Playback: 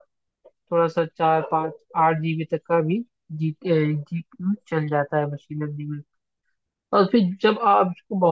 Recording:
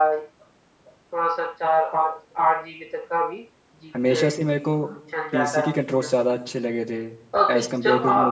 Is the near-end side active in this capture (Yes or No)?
Yes